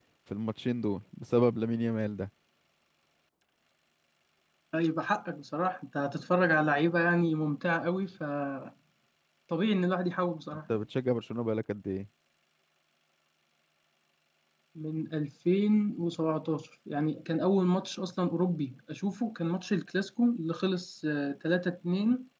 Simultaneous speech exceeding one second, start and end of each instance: none

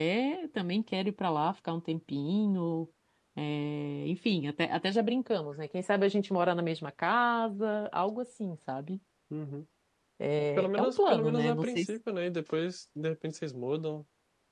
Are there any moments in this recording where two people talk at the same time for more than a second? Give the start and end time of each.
10.6-11.9

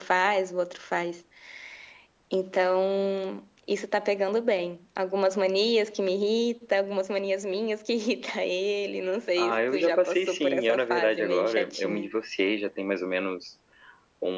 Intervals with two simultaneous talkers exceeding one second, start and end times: 9.4-12.1

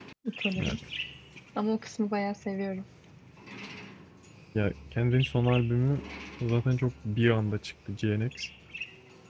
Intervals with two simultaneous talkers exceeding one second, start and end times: none

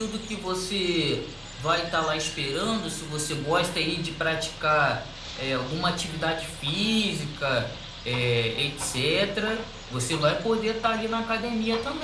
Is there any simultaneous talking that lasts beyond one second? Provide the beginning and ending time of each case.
none

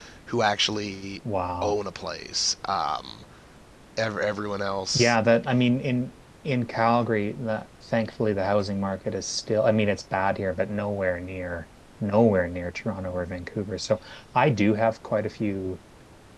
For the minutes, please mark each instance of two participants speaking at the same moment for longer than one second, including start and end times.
none

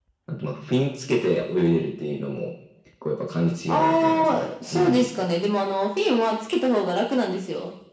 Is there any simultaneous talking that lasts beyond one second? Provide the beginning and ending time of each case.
3.7-5.1

